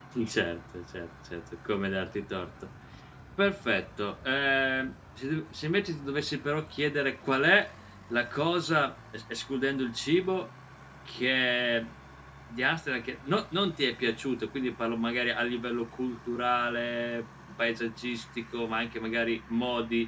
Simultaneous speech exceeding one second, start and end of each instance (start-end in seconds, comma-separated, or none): none